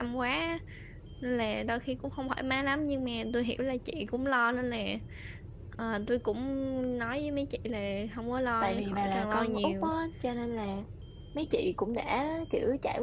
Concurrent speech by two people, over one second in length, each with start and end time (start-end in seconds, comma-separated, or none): 8.6-9.9